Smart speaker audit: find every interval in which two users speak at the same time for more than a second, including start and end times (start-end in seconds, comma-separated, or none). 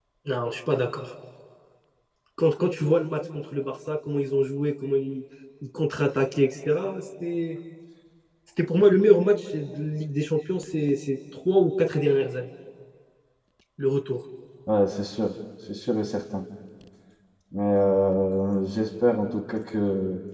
none